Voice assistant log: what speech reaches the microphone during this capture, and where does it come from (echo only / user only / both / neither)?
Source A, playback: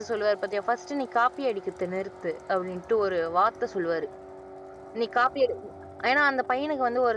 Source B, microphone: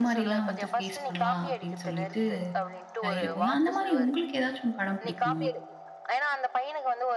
both